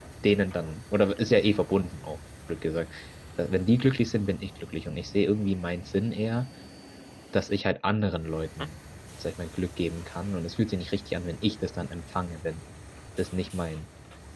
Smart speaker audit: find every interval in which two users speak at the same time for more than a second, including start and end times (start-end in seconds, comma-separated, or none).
none